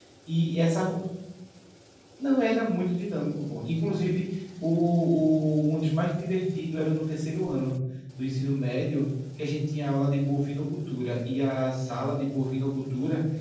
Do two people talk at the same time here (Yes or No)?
No